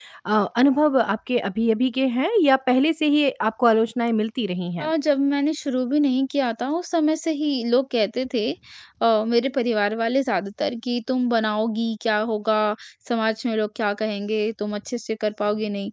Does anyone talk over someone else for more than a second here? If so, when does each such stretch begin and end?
none

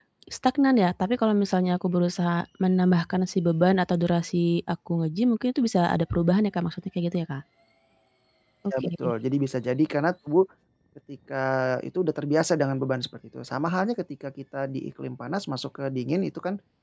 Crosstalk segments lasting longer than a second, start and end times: none

